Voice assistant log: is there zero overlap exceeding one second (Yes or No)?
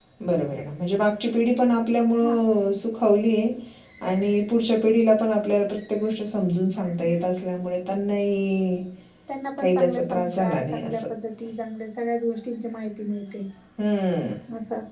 No